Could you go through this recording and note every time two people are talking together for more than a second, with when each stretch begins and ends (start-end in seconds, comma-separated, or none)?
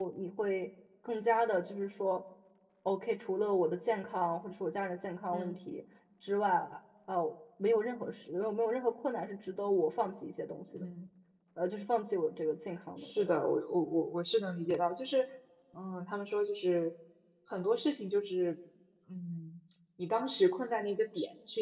none